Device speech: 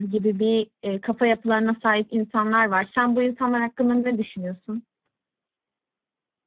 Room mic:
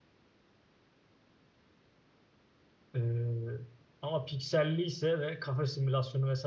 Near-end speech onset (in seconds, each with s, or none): 2.9 s